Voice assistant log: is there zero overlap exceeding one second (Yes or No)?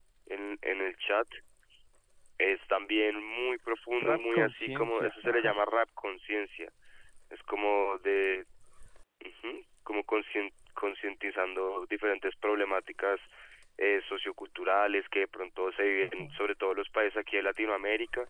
No